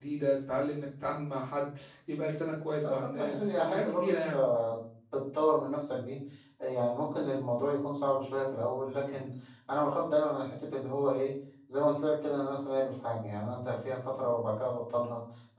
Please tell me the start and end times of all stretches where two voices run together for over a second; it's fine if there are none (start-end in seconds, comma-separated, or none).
2.8-4.4